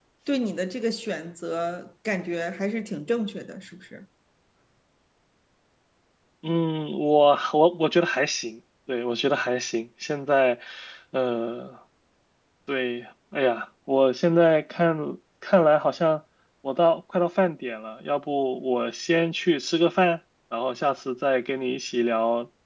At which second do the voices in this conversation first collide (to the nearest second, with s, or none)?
none